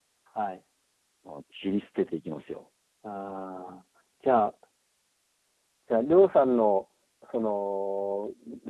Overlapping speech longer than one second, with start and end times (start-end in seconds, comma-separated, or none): none